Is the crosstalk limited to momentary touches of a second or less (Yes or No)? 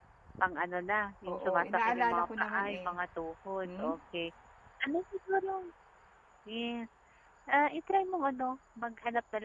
No